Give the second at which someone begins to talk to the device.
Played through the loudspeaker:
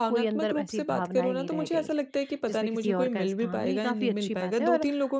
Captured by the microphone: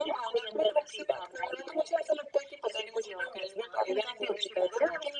none

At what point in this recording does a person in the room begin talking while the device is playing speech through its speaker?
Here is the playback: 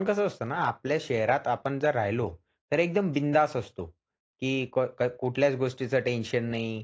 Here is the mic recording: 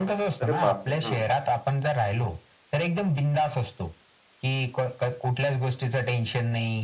0.4 s

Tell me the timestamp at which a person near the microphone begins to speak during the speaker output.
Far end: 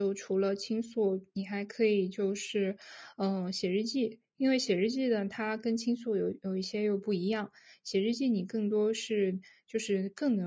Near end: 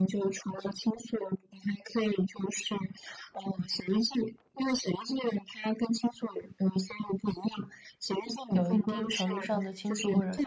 8.5 s

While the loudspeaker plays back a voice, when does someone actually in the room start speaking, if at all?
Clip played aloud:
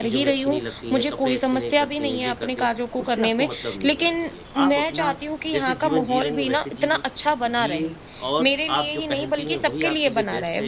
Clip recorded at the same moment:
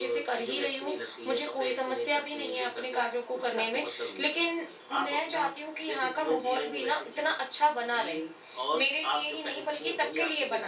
none

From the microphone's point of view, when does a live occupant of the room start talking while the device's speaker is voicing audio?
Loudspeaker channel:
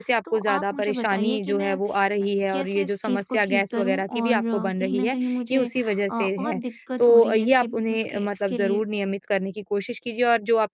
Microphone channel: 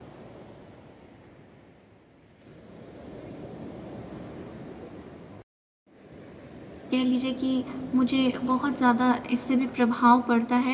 6.9 s

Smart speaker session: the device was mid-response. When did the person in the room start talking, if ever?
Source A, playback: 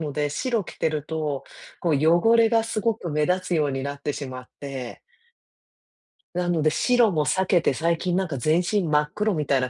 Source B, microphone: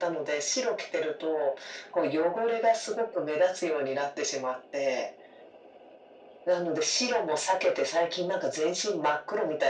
none

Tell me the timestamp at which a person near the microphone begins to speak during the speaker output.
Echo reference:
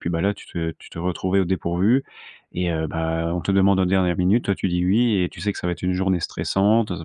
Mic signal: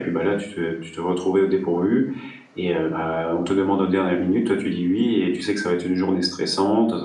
none

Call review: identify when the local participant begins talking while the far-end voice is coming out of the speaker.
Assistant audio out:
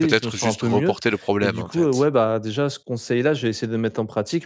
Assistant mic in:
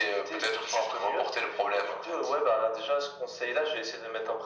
none

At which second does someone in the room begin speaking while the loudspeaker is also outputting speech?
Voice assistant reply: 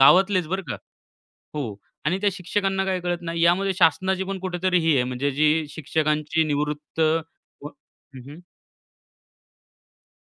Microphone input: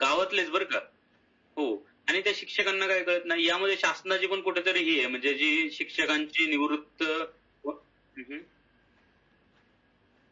none

